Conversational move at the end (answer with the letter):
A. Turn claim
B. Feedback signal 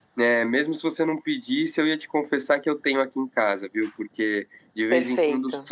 B